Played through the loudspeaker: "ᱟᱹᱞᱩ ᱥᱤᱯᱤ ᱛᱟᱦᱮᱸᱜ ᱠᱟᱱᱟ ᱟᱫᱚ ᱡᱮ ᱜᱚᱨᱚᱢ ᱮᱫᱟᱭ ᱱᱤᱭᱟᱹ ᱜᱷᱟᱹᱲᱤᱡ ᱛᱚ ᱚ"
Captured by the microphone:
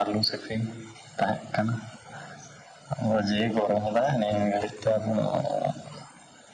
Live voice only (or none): none